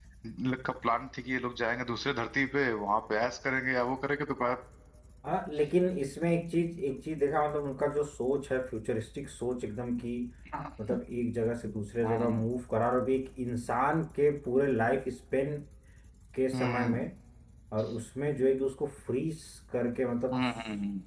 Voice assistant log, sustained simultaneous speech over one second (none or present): none